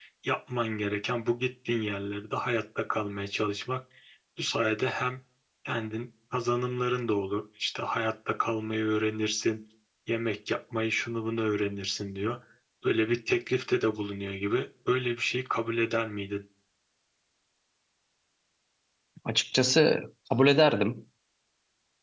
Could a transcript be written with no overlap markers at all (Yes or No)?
Yes